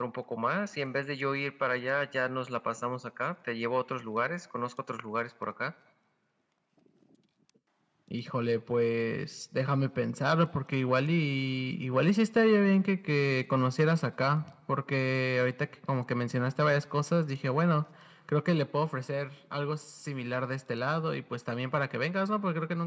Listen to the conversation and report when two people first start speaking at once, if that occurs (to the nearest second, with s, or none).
none